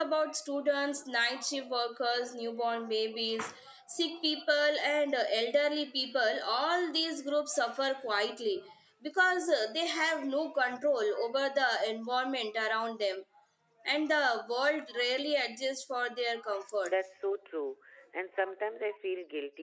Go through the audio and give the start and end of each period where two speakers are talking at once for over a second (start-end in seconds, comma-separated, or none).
none